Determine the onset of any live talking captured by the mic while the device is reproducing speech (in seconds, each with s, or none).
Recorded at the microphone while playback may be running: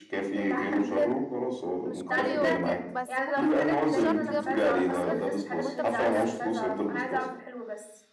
1.8 s